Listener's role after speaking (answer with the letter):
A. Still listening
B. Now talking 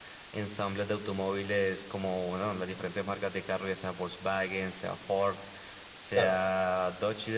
A